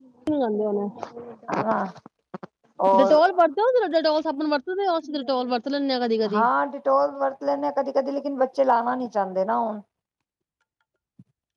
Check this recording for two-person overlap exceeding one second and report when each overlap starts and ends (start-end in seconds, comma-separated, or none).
none